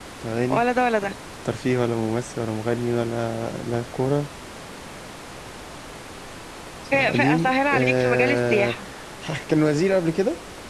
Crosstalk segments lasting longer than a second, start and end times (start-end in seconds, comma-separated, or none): 6.9-8.8